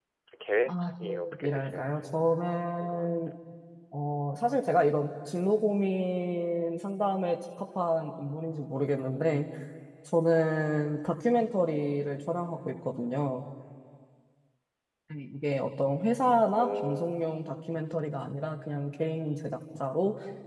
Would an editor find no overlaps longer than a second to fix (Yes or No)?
No